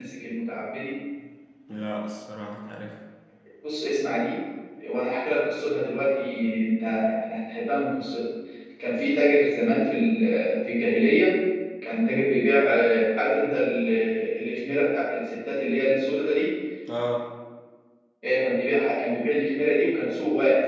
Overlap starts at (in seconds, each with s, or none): none